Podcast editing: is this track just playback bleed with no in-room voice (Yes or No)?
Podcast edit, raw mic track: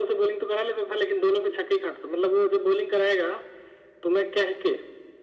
Yes